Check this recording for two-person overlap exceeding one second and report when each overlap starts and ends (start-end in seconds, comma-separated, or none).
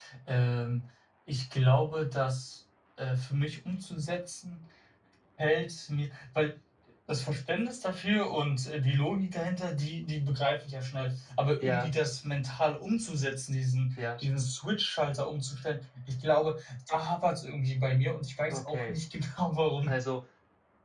none